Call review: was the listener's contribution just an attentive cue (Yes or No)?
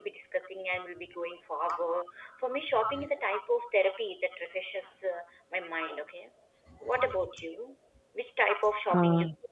Yes